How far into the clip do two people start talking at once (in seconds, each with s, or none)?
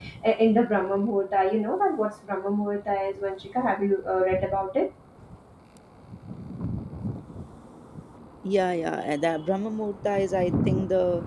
none